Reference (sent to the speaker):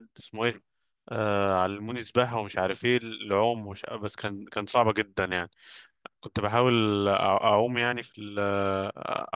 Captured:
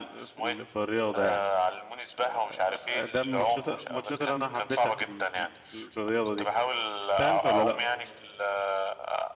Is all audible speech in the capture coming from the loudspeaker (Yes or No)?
No